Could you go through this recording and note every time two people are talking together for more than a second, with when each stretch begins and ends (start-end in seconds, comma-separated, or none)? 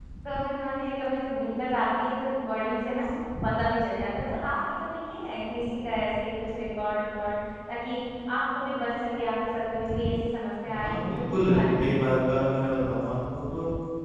10.6-12.1